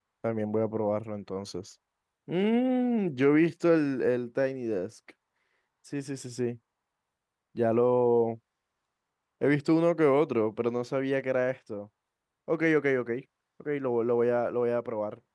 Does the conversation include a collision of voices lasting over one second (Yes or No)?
No